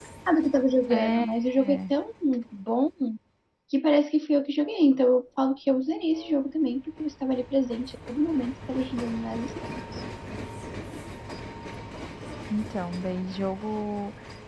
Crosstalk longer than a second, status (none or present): none